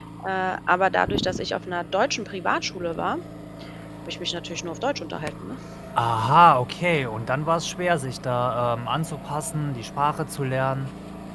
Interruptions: none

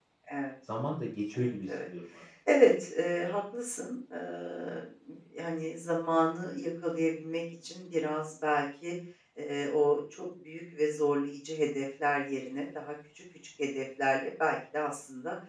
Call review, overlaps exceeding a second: none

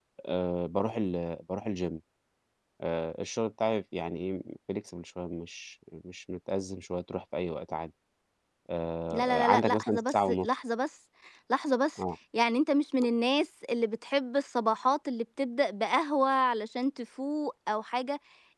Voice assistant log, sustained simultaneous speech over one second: present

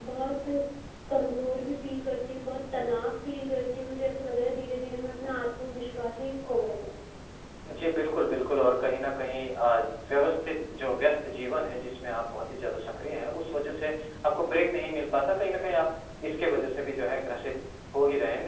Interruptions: none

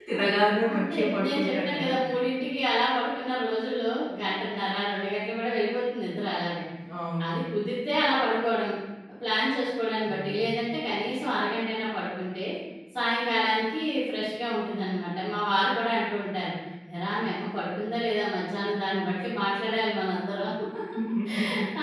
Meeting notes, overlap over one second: present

